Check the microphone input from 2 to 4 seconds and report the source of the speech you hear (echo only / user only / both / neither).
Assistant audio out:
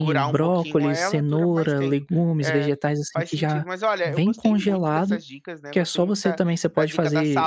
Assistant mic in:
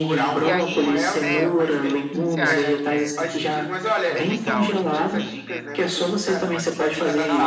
both